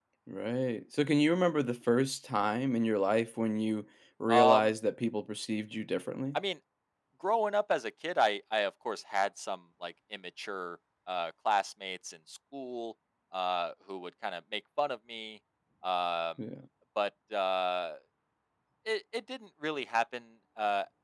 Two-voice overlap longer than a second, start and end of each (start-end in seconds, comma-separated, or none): none